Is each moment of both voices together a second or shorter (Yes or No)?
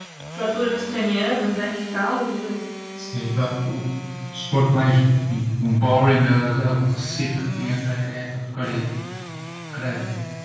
Yes